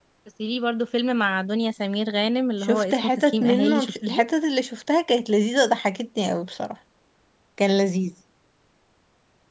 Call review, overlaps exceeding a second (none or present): present